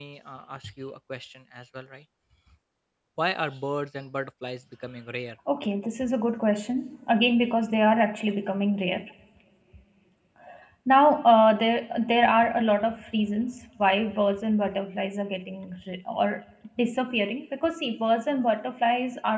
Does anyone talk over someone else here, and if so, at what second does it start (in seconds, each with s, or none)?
none